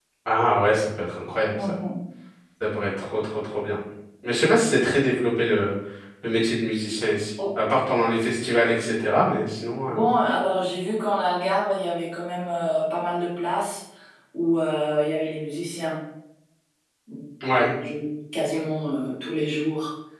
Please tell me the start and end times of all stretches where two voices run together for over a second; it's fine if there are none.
none

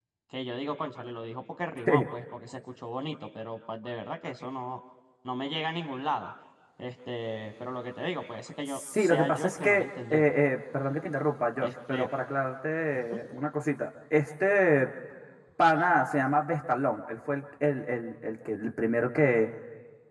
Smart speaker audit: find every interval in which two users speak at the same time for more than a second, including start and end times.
8.7-10.2

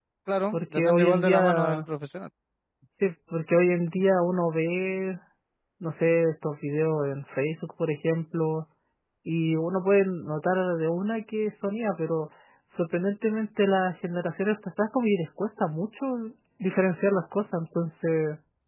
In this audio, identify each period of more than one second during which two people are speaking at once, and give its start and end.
0.5-1.9

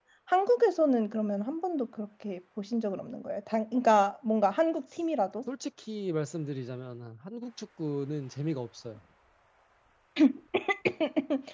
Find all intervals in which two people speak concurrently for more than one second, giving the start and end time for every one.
none

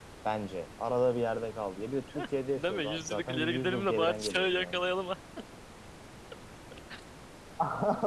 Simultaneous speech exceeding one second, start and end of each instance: 2.6-4.8

